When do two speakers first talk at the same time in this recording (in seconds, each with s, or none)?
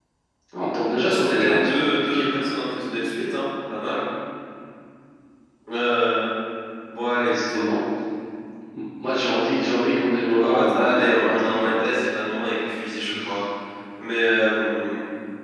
1.0 s